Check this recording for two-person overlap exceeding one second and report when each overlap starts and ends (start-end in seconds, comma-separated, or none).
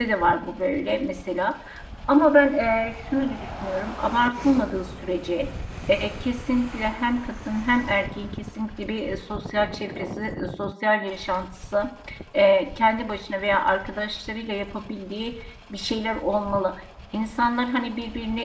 none